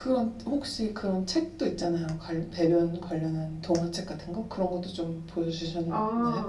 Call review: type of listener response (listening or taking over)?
taking over